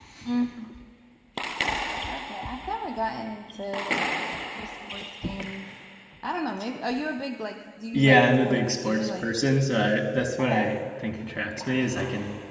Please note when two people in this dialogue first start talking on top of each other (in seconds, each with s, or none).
7.9 s